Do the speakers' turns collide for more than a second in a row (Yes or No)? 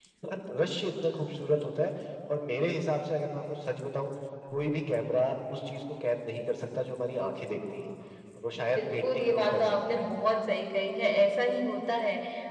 Yes